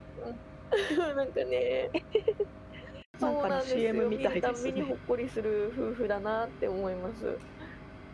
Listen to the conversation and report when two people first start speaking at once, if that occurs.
3.2 s

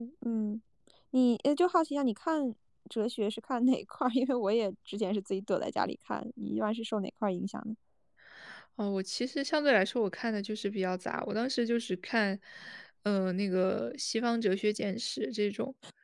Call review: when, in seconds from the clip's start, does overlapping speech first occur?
none

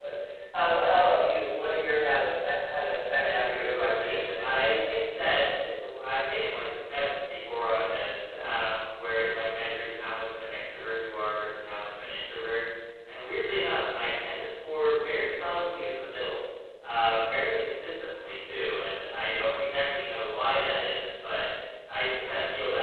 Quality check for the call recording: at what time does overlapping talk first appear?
3.2 s

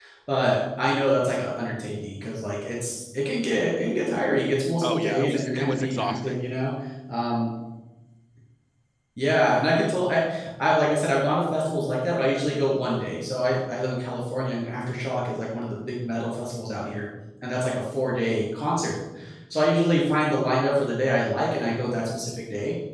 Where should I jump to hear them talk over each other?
4.8 s

